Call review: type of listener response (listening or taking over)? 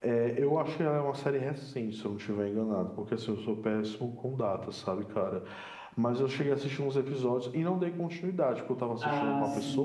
listening